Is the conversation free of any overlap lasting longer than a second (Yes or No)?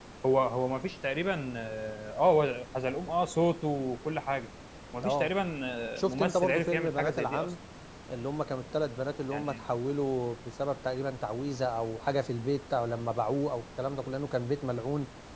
No